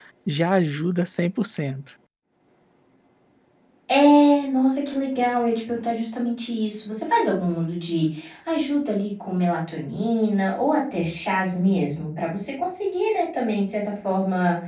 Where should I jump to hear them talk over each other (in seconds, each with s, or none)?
none